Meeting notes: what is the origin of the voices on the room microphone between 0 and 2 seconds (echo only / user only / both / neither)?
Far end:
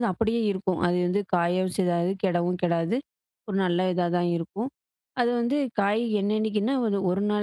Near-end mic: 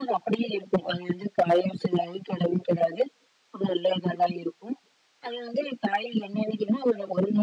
echo only